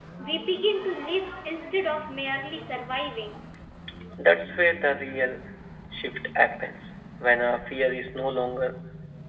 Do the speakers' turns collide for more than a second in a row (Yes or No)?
No